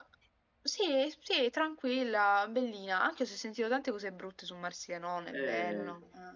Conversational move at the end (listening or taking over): taking over